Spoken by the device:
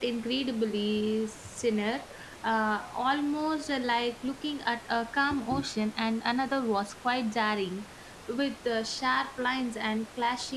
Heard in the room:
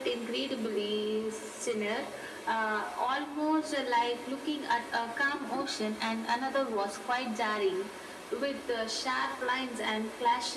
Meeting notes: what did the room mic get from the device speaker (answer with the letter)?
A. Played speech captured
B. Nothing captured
A